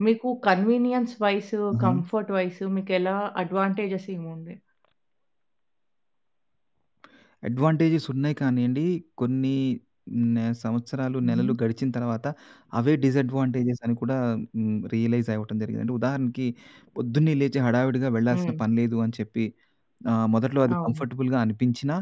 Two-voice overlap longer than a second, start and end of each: none

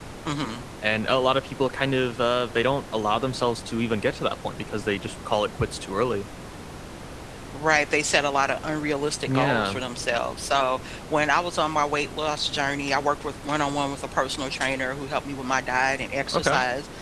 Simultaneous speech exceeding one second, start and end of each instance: none

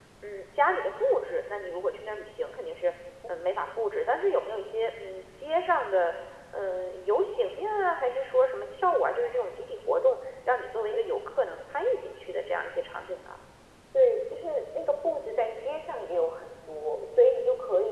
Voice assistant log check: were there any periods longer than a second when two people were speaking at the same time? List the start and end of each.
none

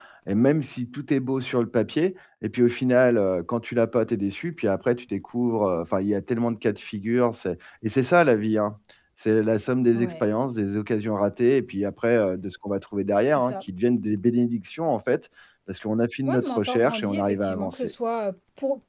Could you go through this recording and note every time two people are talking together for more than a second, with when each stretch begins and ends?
16.2-17.9

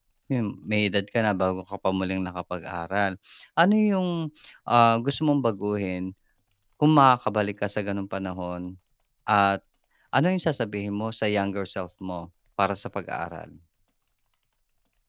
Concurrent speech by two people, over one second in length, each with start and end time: none

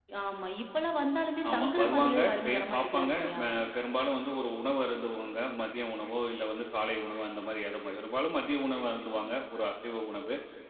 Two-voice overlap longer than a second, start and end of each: 1.5-3.4

